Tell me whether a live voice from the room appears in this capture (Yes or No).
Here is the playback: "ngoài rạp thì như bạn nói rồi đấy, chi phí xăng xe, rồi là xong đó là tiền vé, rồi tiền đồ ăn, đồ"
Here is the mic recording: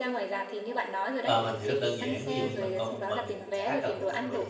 Yes